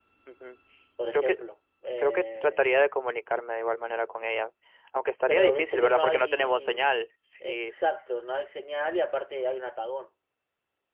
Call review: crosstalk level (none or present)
present